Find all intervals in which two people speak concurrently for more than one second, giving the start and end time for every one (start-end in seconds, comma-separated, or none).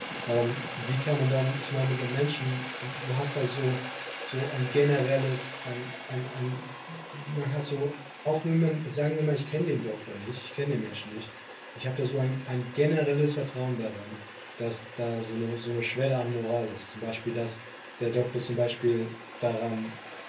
none